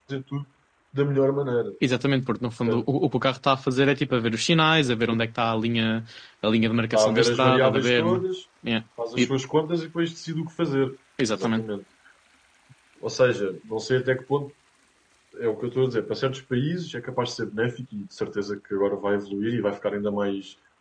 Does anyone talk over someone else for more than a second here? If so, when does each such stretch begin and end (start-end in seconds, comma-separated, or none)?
6.9-8.2